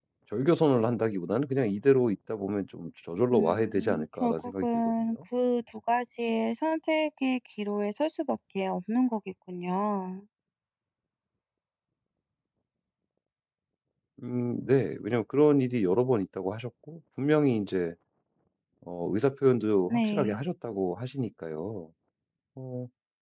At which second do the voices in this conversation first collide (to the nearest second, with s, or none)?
3 s